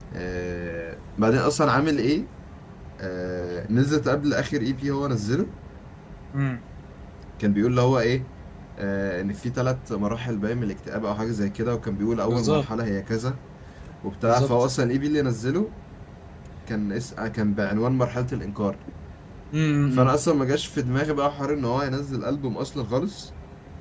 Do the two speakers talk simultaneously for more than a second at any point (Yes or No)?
No